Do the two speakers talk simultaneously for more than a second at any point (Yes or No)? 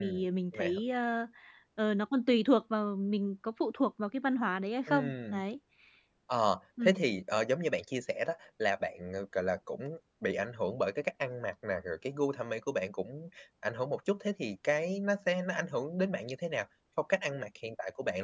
No